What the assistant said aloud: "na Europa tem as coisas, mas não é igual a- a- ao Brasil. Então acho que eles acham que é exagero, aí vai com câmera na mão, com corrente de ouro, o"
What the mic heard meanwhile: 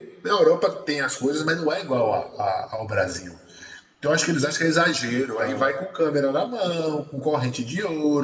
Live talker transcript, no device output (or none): Então,